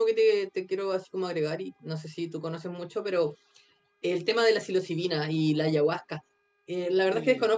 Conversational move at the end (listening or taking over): listening